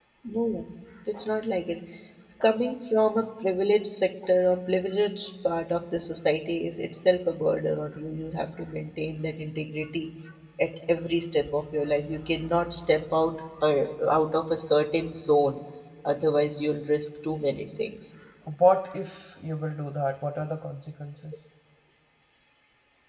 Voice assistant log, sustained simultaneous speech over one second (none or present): none